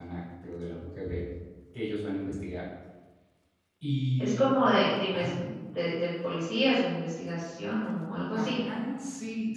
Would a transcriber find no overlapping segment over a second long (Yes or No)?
Yes